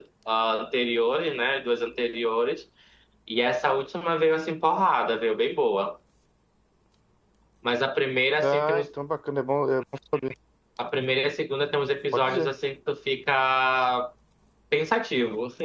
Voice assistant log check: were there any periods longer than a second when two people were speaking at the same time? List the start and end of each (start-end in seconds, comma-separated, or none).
none